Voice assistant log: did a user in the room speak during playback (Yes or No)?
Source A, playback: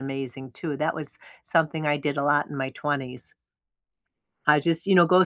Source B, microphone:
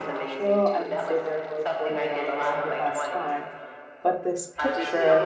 Yes